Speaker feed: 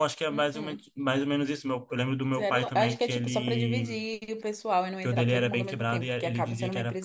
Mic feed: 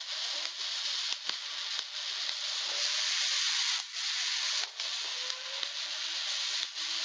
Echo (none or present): none